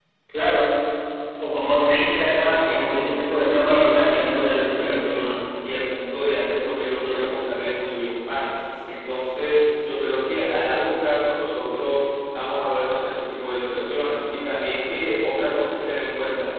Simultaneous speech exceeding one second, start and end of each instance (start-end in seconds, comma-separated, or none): 2.4-5.3